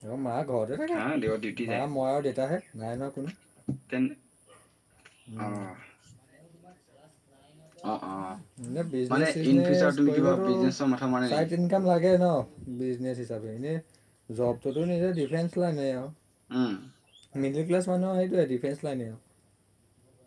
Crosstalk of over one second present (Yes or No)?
Yes